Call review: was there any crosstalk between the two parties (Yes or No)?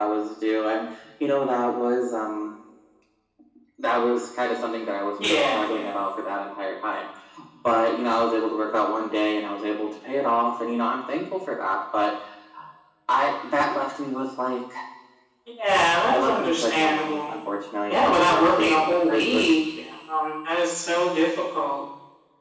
Yes